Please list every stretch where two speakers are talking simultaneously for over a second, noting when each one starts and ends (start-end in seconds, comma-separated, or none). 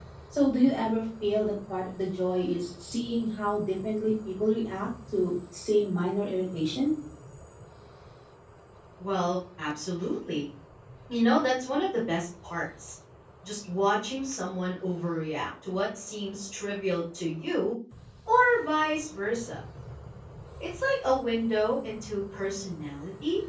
none